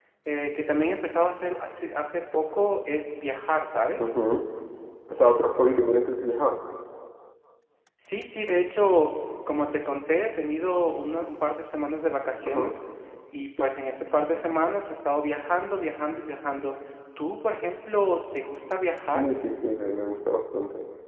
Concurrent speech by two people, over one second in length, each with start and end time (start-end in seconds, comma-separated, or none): none